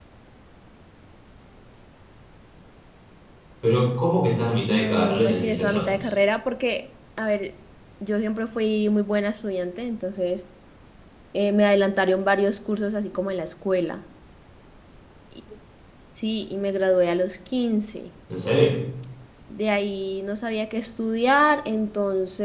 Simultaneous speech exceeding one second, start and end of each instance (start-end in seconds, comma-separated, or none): 4.7-6.0